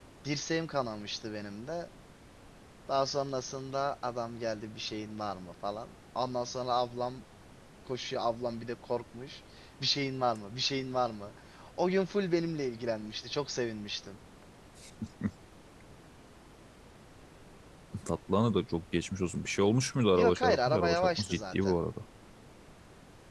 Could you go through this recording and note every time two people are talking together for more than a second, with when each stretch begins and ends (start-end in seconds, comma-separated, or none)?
20.1-21.8